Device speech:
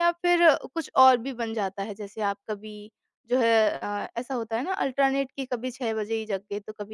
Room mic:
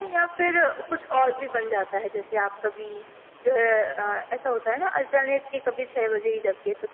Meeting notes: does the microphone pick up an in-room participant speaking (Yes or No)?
No